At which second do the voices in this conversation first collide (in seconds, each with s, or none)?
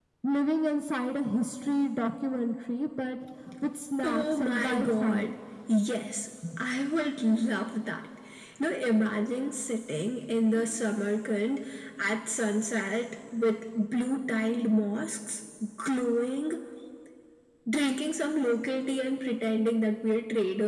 4.0 s